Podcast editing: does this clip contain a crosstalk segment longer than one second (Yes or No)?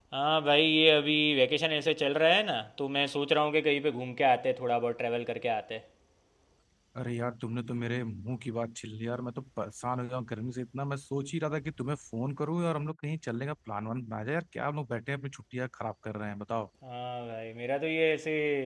No